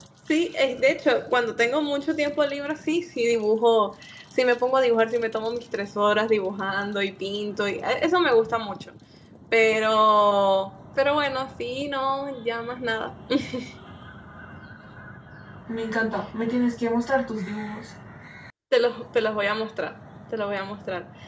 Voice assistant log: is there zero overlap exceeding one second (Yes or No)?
Yes